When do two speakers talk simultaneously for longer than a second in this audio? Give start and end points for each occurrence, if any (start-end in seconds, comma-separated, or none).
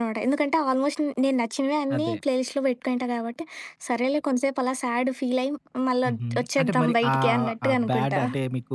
6.1-8.2